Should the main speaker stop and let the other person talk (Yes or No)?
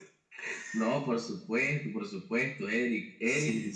No